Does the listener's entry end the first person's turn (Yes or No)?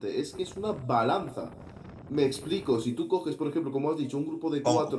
No